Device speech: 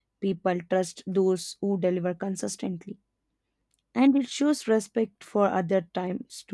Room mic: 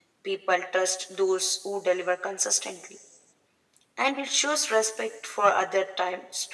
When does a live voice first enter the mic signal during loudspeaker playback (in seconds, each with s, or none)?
none